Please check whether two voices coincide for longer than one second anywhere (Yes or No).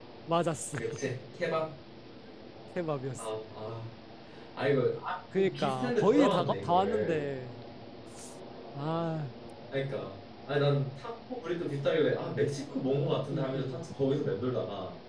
Yes